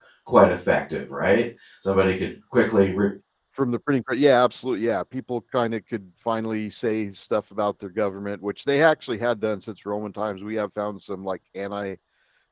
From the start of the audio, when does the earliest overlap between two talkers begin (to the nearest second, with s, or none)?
none